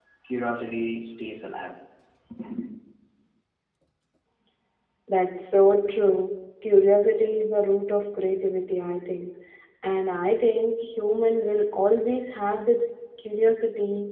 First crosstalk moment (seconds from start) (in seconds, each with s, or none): none